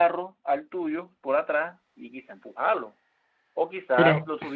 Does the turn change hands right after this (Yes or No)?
No